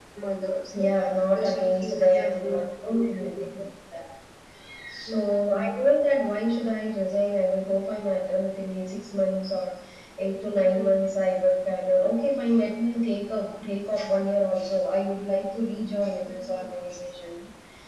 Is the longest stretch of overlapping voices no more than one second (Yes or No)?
No